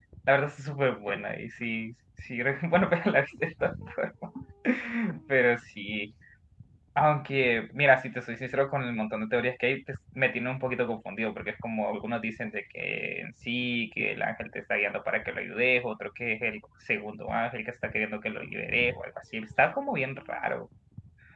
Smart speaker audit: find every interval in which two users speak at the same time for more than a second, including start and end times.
none

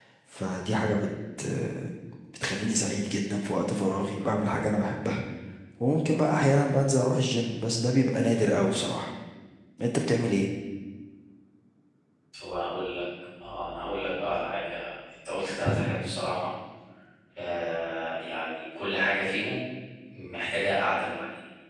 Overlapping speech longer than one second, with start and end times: none

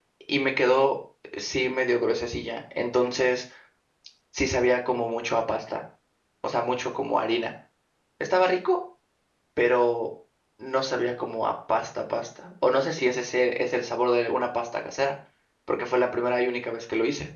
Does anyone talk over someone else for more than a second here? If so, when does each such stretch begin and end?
none

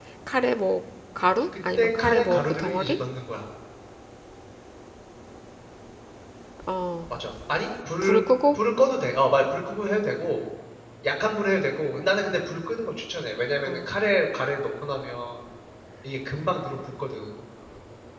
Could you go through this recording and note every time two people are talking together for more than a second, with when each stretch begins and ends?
1.8-3.0

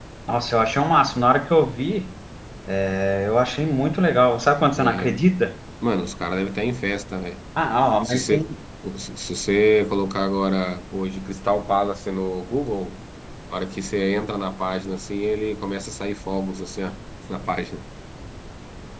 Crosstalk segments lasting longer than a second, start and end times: none

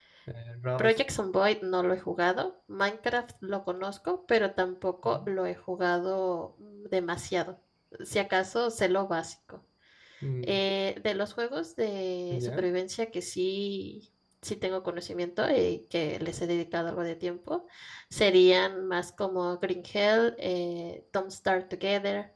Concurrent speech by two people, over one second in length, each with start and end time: none

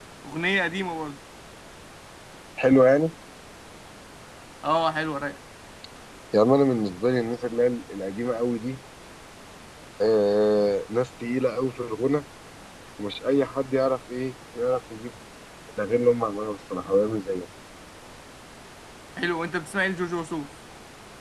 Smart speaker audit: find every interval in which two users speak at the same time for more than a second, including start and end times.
none

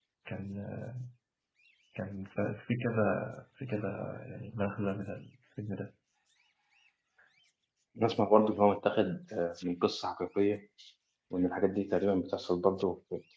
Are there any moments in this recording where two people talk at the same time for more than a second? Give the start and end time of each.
none

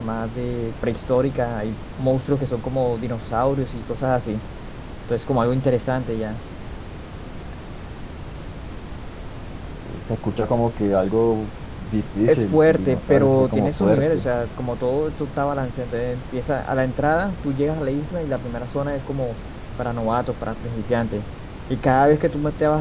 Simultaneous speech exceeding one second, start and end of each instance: 12.3-14.3

